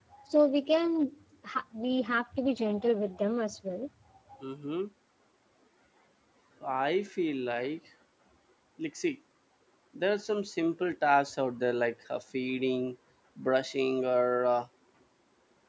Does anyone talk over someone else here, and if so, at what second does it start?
none

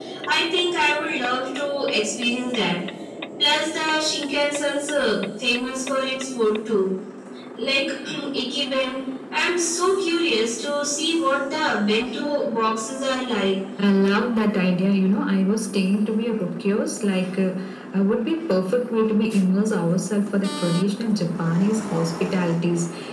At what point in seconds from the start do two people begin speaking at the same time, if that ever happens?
none

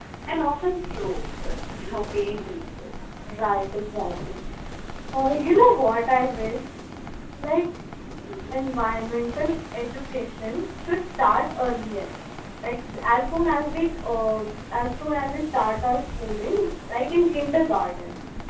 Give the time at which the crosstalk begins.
none

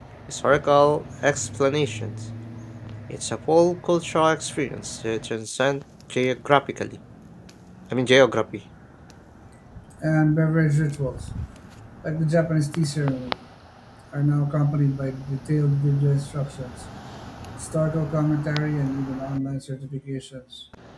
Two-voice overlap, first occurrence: none

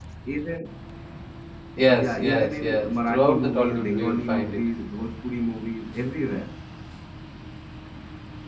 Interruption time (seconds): 1.9 s

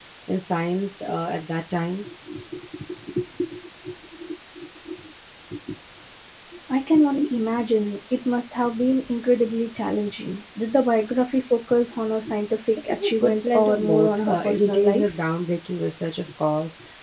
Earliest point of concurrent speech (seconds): 12.9 s

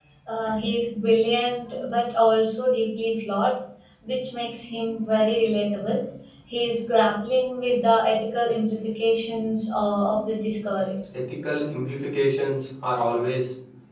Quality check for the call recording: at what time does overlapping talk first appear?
none

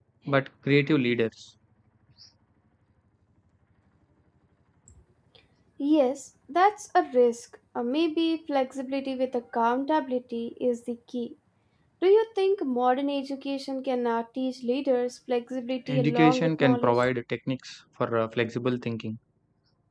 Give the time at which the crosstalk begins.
15.9 s

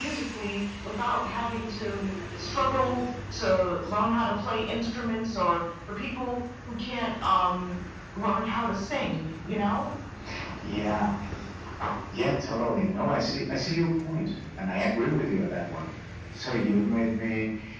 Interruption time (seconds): none

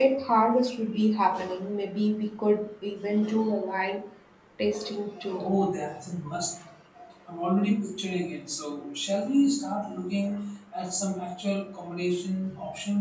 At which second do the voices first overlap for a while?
none

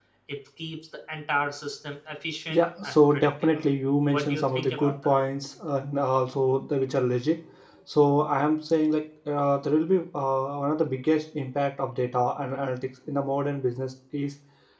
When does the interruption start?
2.5 s

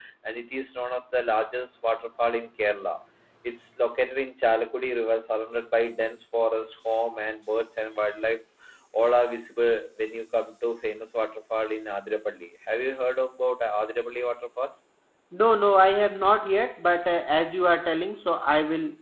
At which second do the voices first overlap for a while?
none

